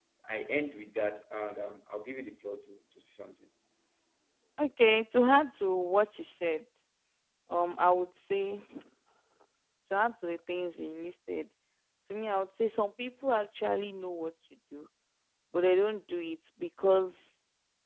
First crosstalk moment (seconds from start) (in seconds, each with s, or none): none